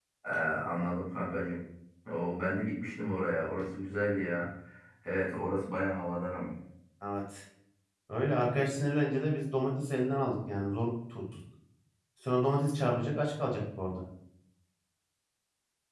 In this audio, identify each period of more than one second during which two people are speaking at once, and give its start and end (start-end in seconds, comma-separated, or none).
none